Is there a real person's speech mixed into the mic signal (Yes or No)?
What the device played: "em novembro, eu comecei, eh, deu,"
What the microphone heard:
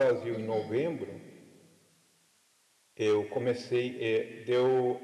Yes